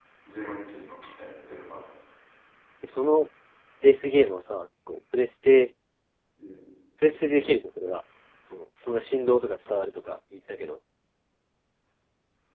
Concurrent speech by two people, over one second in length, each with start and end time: none

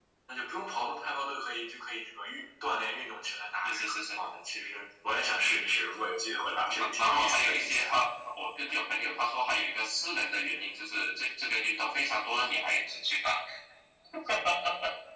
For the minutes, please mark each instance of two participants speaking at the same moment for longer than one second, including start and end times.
6.4-7.9

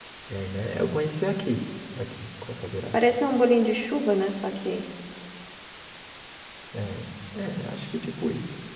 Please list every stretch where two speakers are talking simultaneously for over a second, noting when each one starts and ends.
none

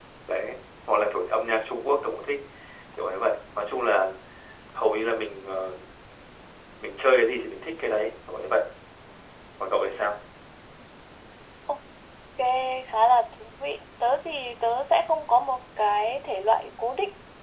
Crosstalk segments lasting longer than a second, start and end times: none

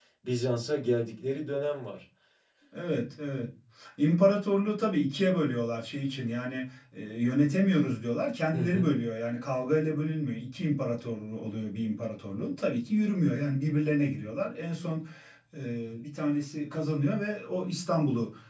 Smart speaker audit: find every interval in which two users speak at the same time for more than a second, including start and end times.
none

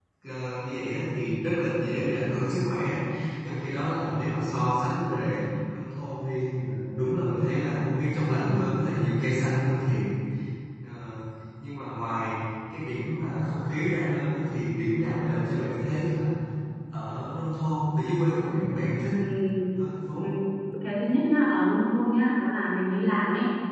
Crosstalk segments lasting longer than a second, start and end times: none

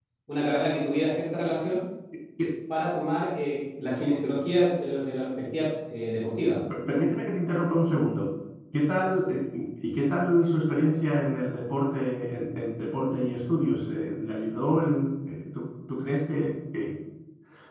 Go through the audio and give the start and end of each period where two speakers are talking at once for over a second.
none

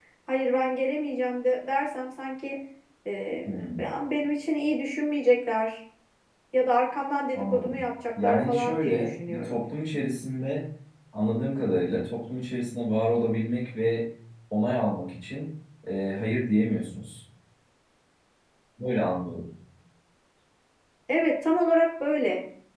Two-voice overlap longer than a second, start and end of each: 8.2-9.6

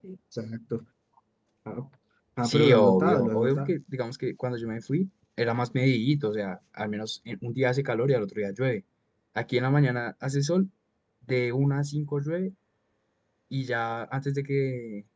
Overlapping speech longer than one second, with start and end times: 2.4-3.8

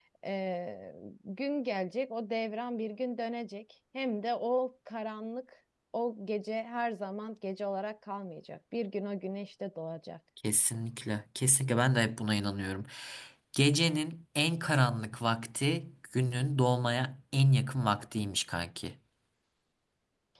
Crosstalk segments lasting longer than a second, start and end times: none

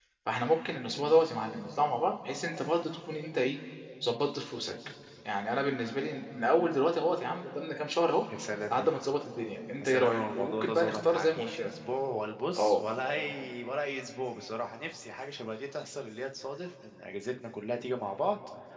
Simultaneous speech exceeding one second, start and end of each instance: 9.8-11.7

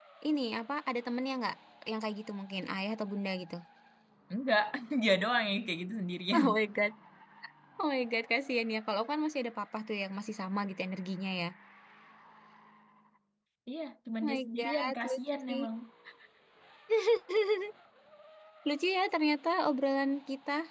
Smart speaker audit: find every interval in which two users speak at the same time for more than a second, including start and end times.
14.2-15.6

